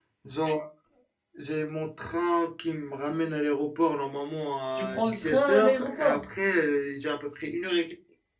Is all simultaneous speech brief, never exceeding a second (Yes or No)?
No